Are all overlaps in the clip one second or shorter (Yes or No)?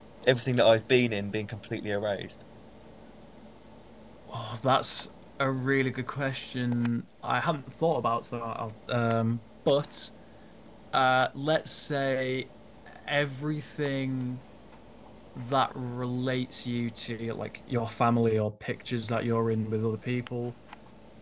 Yes